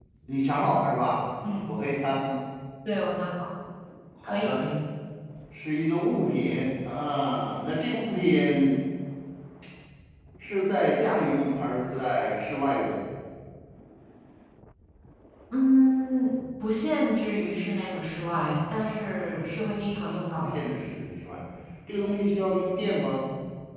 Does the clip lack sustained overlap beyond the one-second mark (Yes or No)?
Yes